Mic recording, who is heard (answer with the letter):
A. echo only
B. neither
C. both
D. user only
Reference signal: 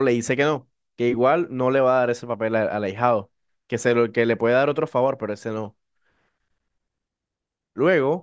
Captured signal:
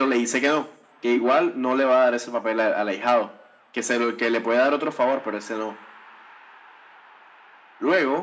A